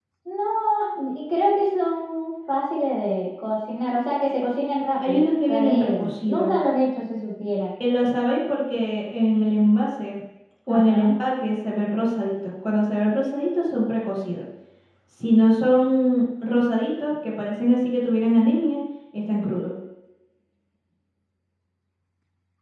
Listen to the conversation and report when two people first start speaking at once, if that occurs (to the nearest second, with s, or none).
5 s